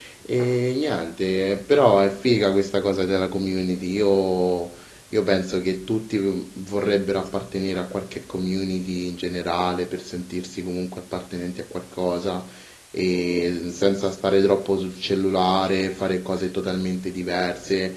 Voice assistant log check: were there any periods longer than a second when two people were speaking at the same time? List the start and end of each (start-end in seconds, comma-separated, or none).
none